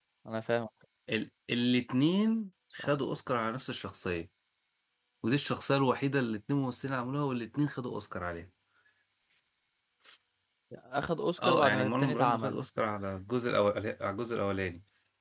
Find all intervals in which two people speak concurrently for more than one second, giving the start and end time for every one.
11.4-12.6

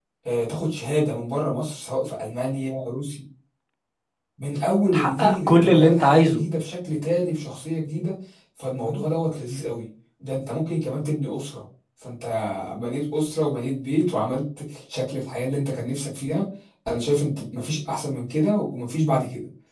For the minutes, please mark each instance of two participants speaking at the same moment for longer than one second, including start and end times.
4.9-6.4

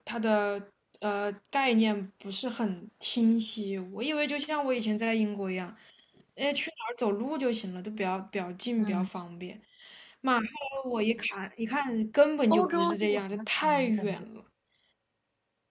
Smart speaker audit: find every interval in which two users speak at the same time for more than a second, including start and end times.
12.5-14.2

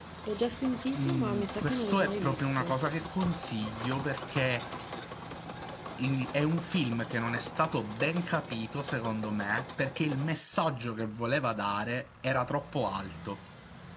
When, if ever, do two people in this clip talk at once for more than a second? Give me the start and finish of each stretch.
1.0-2.7

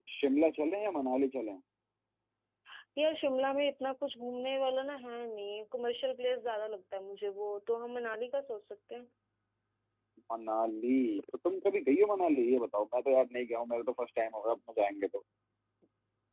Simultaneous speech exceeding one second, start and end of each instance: none

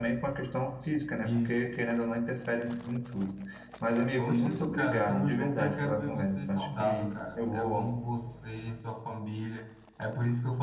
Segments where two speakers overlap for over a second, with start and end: 4.2-7.9

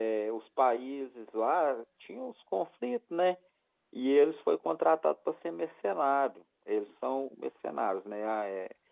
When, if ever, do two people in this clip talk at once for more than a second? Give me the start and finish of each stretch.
none

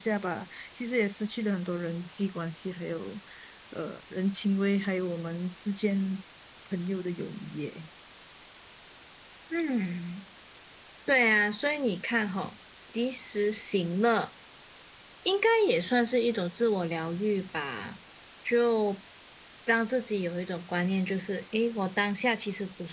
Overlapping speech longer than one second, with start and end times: none

